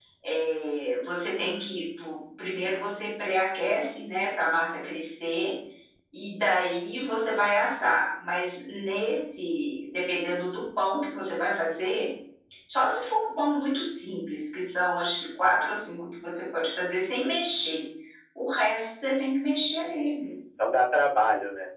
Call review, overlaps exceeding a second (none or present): none